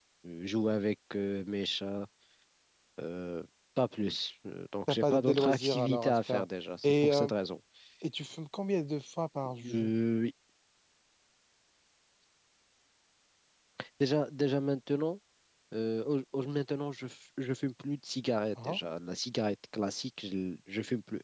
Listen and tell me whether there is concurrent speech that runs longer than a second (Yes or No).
Yes